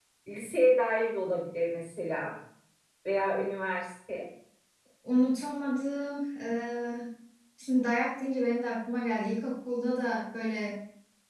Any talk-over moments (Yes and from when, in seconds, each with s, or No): No